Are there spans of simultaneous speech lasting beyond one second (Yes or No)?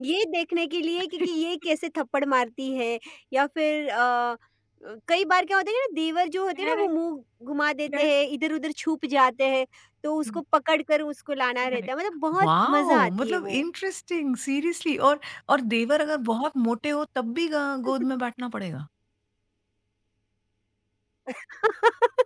Yes